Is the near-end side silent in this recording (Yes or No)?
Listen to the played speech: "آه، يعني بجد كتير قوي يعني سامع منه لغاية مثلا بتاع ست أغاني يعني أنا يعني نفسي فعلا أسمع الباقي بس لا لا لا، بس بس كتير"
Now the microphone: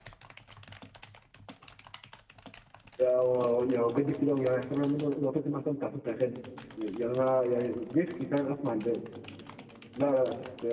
Yes